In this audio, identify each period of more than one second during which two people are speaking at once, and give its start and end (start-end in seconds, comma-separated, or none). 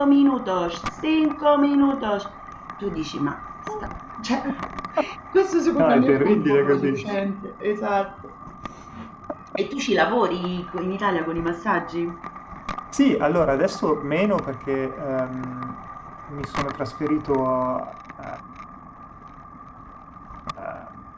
5.8-7.1